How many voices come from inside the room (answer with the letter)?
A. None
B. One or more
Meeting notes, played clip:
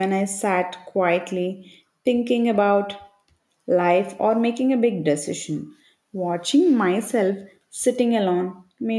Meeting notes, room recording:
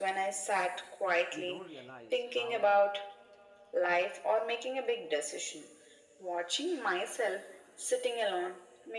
B